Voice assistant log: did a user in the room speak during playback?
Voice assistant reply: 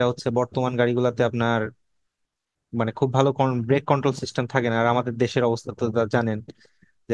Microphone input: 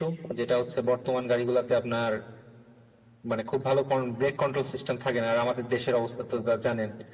No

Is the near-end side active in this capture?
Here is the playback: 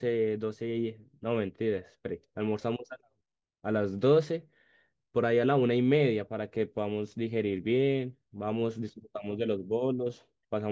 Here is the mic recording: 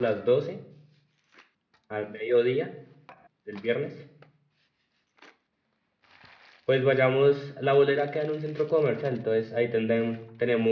Yes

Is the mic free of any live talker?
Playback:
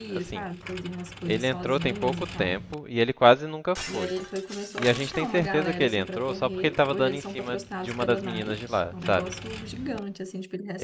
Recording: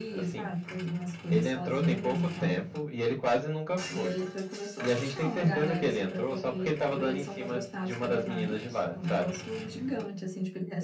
Yes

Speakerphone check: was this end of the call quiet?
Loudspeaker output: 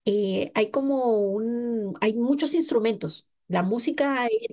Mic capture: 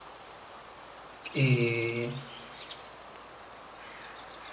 No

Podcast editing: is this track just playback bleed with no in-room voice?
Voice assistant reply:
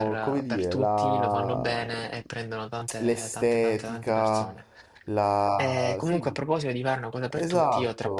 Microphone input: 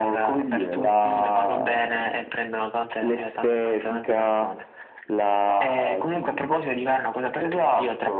Yes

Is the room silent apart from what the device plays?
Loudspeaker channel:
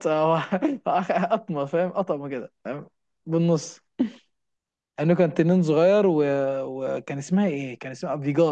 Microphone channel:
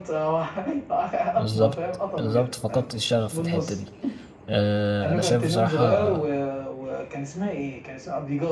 No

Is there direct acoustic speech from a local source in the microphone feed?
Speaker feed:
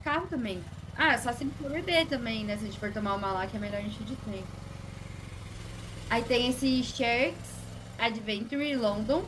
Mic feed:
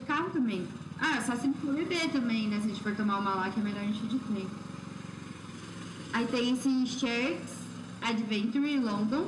No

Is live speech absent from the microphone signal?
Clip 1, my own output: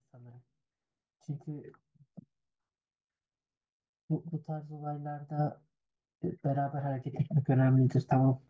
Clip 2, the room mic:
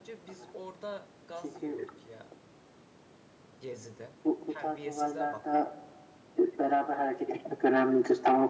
No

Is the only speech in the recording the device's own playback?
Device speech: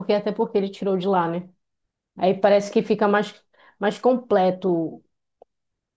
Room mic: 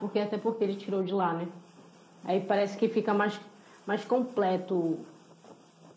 Yes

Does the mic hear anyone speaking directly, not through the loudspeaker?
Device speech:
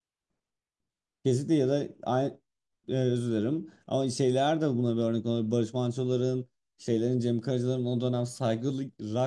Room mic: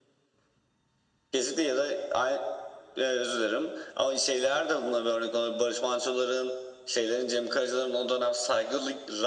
No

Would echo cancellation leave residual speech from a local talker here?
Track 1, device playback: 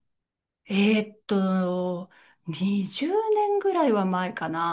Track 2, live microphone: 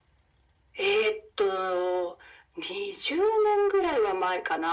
No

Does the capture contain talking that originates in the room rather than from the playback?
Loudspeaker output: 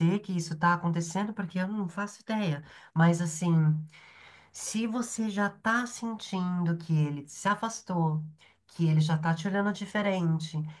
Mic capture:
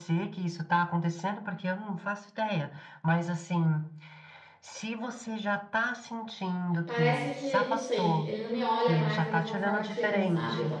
Yes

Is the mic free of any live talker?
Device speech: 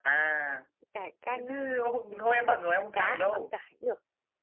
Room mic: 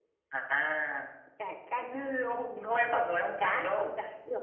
Yes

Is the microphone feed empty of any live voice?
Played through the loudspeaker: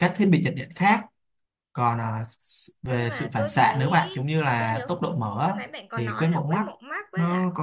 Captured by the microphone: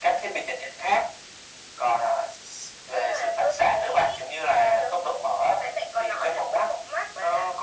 Yes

